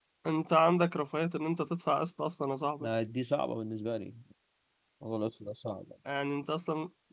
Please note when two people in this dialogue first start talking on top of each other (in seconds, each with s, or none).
none